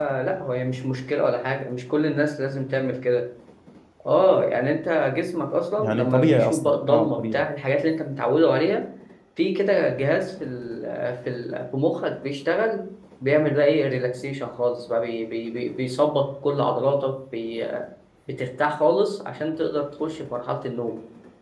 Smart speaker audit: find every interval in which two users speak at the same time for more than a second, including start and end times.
5.8-7.4

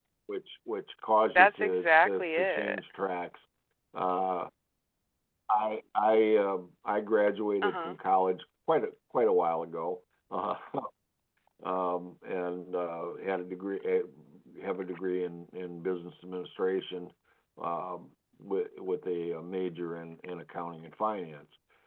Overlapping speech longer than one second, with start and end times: 1.3-2.8

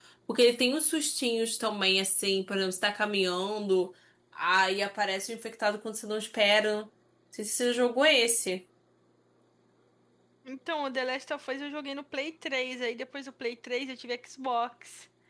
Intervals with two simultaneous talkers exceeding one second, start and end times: none

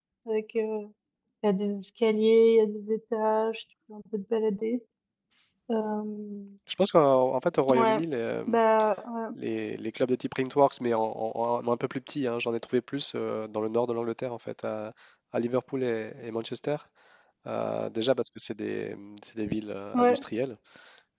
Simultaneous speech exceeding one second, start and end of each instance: none

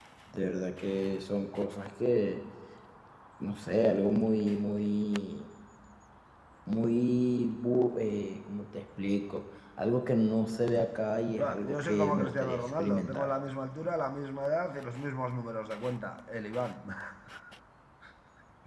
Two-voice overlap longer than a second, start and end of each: 11.4-13.3

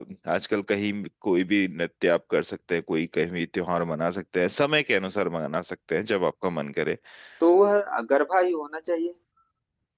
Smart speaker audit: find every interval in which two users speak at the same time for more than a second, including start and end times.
none

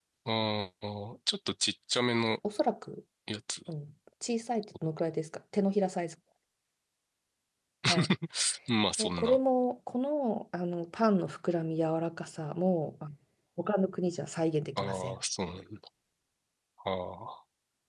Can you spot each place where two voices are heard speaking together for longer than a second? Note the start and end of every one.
none

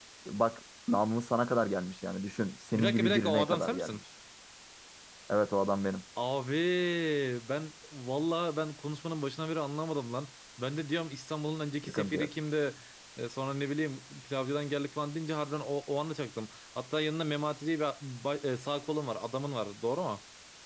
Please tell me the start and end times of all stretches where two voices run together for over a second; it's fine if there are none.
2.7-4.0

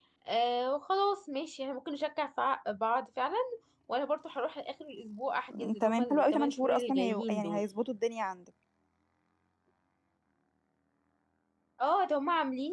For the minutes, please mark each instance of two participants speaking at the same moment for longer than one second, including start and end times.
5.5-7.6

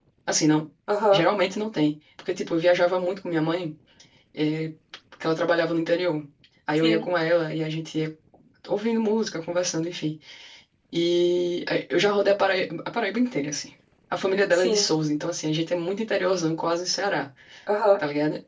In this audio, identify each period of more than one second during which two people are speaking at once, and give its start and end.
none

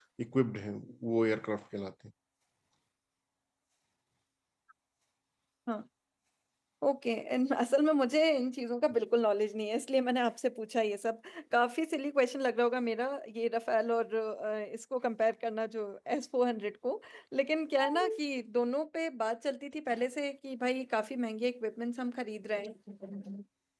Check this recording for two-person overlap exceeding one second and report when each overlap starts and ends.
none

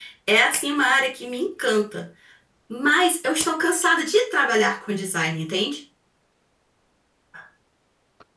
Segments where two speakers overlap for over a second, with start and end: none

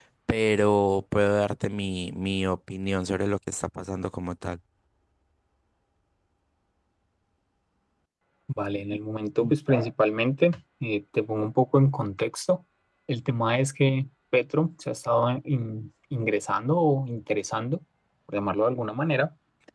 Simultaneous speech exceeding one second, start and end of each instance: none

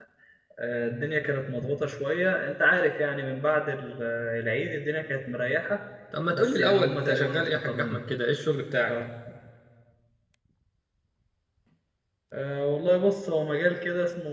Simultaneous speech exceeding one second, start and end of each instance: 6.3-8.0

